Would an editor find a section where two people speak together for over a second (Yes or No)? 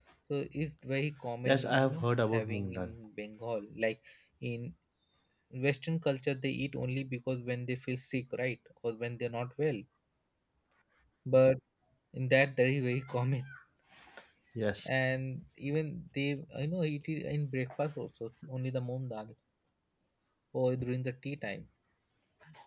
Yes